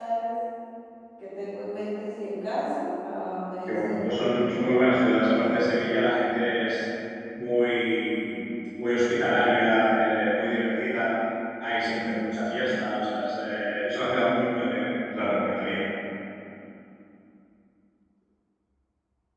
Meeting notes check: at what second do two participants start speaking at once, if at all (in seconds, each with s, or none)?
3.7 s